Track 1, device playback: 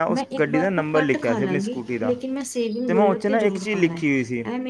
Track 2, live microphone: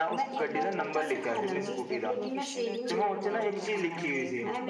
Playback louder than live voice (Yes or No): Yes